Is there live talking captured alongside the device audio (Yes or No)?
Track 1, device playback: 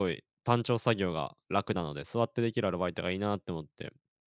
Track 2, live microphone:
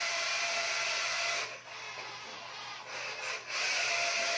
No